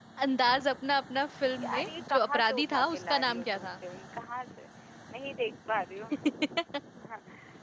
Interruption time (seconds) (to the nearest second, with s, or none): 2 s